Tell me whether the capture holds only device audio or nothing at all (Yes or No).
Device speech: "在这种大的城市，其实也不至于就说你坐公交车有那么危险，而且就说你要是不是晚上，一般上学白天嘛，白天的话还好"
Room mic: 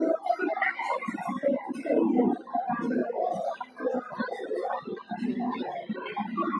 No